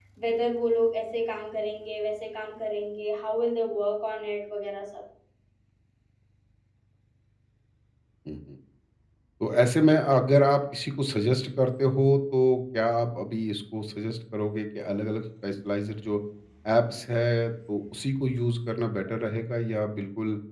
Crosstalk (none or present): none